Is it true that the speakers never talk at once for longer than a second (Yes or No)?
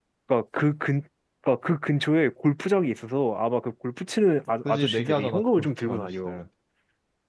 No